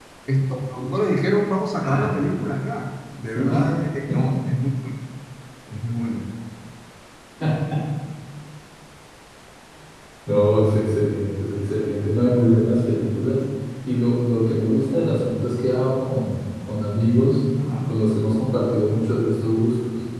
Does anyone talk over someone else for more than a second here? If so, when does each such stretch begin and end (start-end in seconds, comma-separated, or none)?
none